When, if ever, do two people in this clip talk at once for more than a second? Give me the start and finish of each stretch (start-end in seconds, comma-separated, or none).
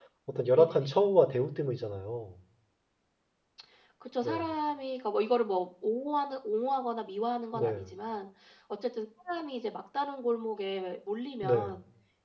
none